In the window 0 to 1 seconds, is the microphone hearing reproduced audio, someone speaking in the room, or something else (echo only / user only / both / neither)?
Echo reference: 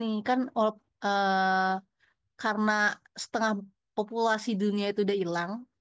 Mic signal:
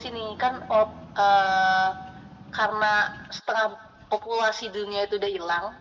echo only